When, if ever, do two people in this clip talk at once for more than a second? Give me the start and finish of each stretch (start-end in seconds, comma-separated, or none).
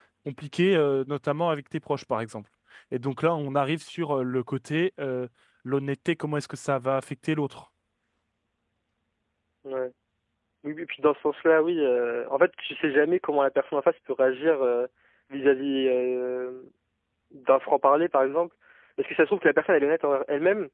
none